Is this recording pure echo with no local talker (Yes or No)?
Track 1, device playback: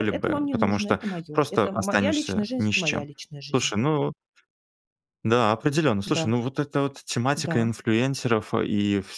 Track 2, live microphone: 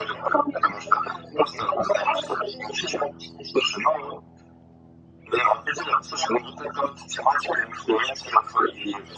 Yes